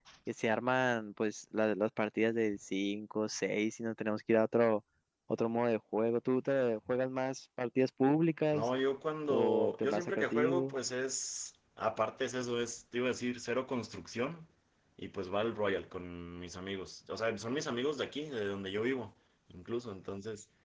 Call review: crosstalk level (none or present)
present